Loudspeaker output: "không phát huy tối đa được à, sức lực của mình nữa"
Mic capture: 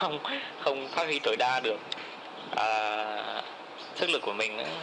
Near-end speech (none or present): none